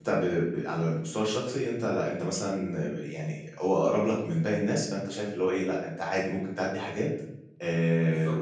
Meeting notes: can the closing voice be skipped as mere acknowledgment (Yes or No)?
No